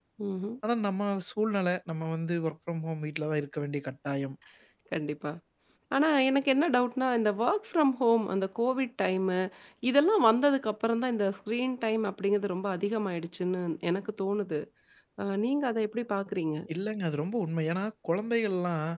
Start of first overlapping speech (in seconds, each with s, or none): none